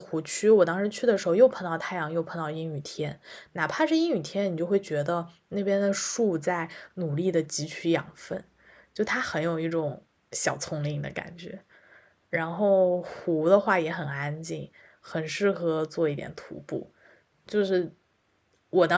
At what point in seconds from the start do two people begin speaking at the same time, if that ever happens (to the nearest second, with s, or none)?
none